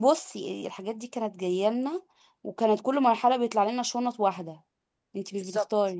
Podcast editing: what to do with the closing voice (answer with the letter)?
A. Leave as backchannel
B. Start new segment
B